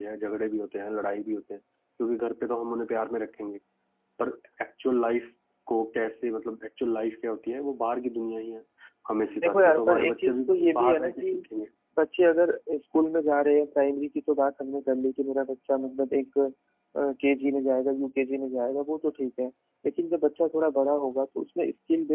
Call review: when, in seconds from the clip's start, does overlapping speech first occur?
9.2 s

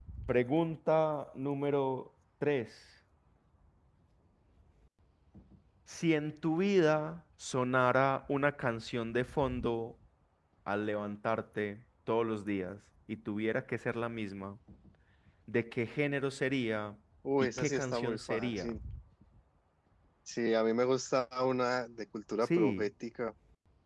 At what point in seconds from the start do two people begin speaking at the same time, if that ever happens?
17.4 s

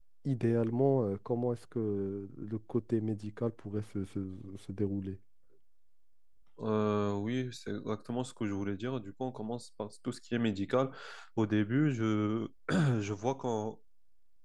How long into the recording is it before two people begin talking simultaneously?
none

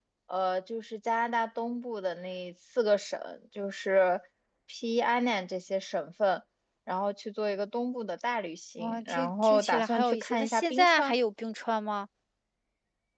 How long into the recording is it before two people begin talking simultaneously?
8.8 s

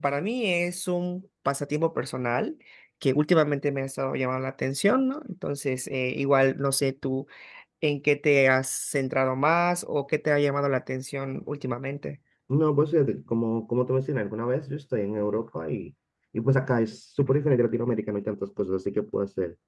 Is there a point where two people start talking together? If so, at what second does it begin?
none

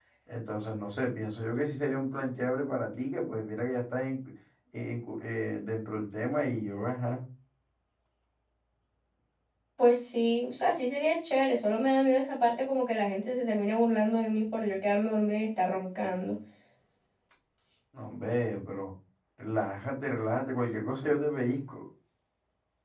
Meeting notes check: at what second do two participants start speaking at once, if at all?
none

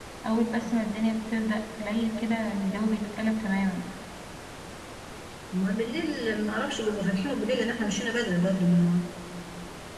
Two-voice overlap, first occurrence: none

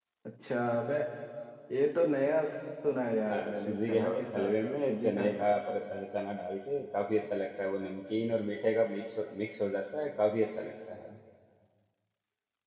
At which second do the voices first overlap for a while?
3.3 s

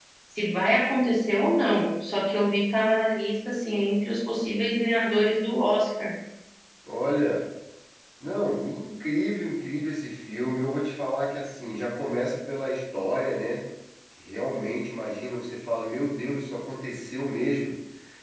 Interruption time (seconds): none

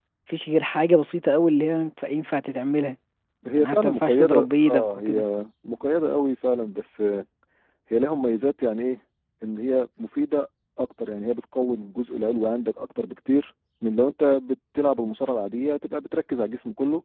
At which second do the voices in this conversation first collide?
3.5 s

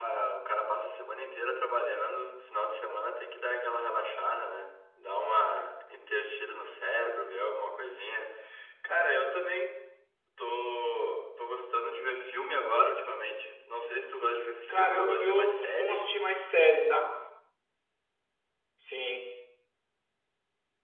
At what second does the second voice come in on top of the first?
14.7 s

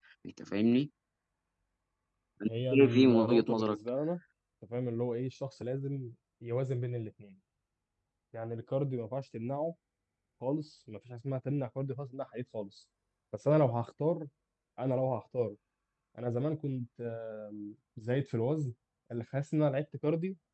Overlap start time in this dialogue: 2.5 s

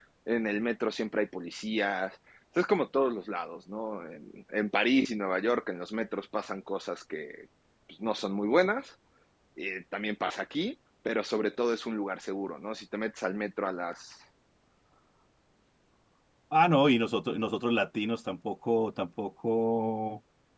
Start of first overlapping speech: none

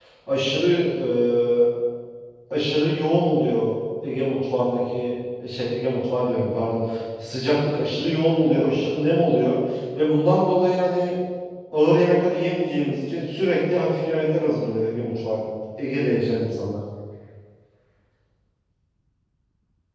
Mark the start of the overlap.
none

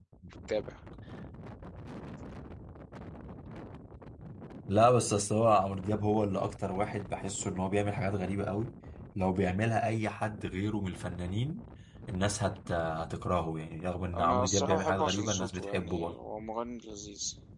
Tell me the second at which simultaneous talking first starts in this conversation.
14.1 s

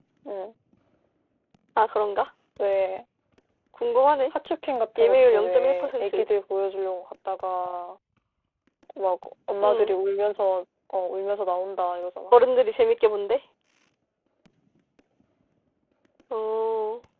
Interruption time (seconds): 5.0 s

